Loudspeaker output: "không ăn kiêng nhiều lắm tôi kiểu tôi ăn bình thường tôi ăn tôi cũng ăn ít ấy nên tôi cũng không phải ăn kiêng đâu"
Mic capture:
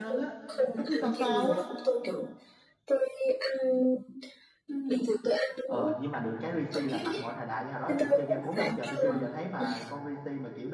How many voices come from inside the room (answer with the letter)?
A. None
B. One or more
B